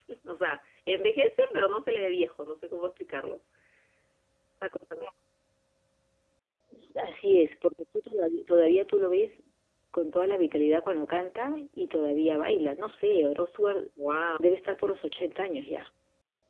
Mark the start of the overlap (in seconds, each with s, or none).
none